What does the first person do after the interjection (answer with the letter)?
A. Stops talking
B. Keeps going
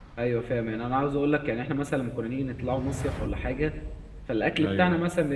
B